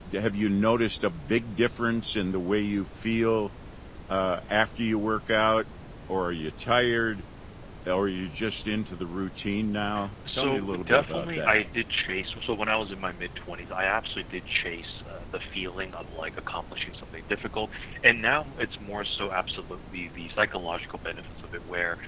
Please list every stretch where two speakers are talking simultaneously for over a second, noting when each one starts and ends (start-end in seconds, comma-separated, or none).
10.4-11.6